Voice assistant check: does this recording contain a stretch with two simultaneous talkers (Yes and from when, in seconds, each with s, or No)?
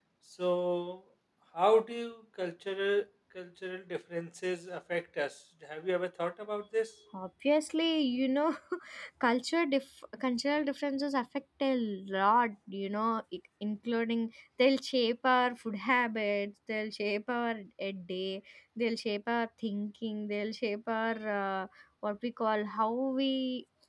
No